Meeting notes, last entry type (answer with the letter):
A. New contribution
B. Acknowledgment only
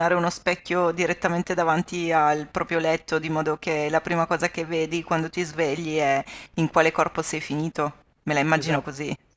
A